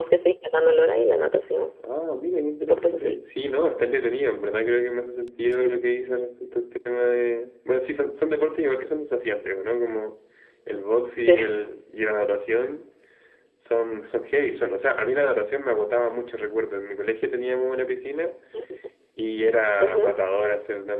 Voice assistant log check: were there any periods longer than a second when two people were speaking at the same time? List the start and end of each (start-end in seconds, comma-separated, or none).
none